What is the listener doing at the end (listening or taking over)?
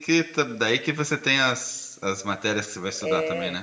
taking over